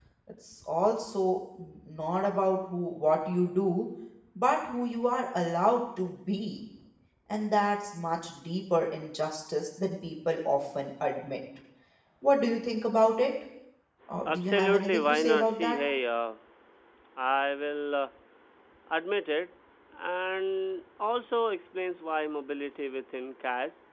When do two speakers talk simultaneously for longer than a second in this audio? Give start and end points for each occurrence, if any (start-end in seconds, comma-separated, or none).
14.3-15.8